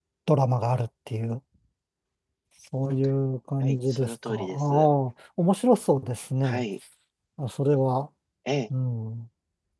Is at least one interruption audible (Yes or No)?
Yes